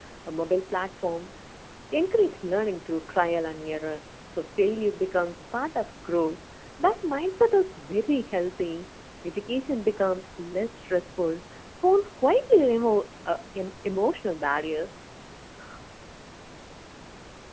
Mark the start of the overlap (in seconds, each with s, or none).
none